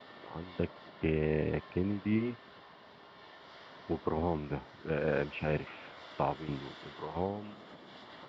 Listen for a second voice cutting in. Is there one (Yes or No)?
No